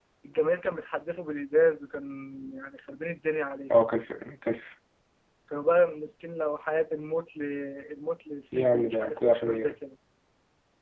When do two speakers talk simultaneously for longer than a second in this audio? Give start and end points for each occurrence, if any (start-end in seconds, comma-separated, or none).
8.5-9.7